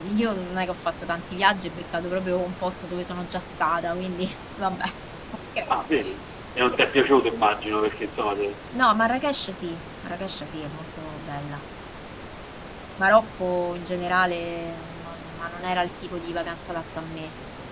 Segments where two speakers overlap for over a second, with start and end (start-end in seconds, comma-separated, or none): none